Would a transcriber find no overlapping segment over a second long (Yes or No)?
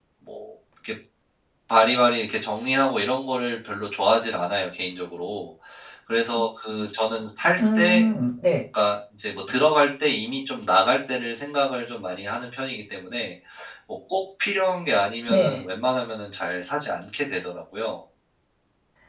Yes